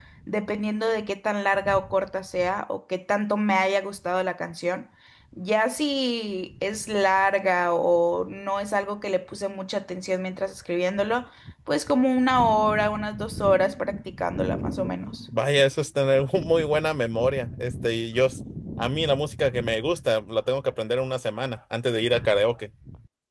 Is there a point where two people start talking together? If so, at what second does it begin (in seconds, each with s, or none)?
none